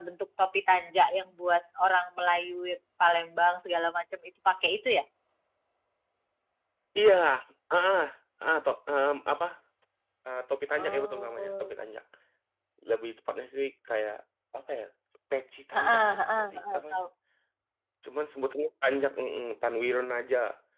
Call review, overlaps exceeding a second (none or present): present